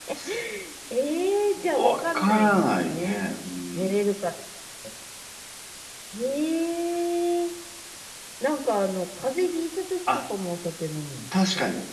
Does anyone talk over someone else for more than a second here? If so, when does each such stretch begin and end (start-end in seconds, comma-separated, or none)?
1.6-3.2